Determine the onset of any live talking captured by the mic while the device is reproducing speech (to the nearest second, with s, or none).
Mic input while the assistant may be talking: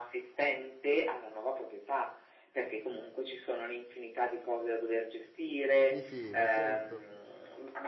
6 s